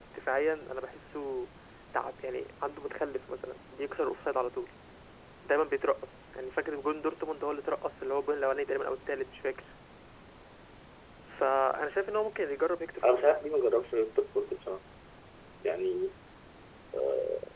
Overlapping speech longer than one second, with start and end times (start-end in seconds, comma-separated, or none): none